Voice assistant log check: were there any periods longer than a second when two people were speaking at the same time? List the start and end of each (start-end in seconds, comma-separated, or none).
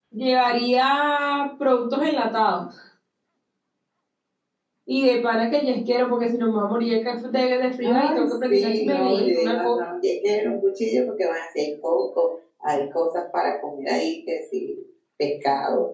7.8-9.8